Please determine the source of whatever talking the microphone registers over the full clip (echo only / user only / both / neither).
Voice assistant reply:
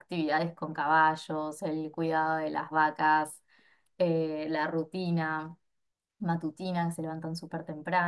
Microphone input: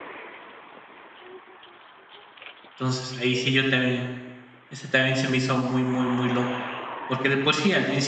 user only